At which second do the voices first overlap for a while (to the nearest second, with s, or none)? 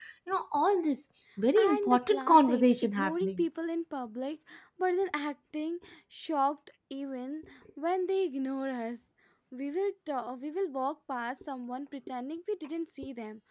2 s